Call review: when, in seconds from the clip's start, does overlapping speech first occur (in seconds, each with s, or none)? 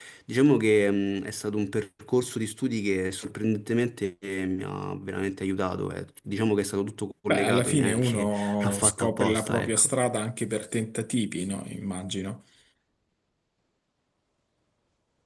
7.3 s